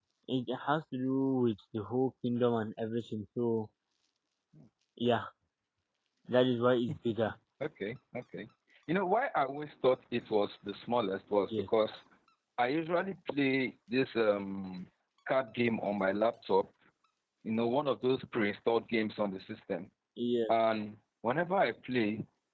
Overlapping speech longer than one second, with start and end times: none

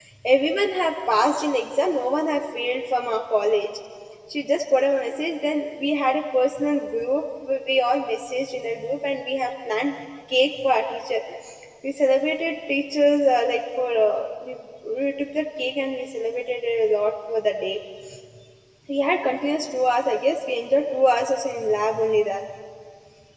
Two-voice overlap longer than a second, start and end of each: none

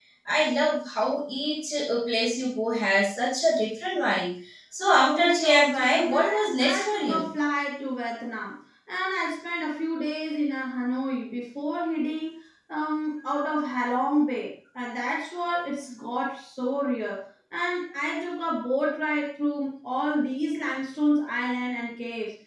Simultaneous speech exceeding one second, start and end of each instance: 5.0-7.3

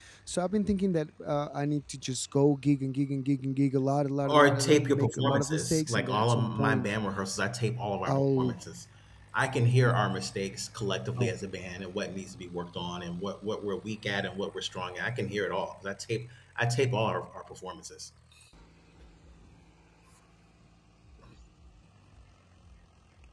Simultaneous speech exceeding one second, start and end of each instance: 4.2-6.9

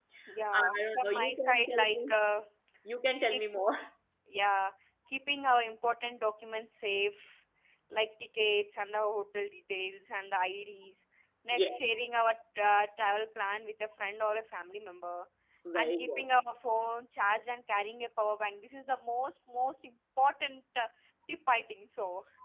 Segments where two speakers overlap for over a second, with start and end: 0.5-2.1

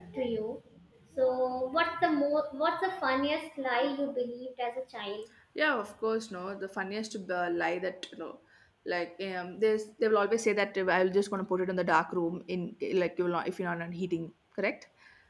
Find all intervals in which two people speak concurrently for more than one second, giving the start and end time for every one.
none

